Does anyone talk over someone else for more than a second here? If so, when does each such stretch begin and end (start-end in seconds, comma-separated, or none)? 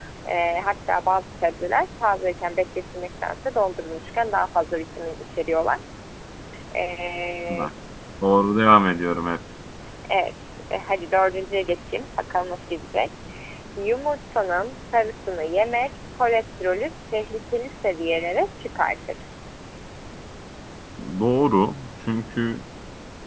none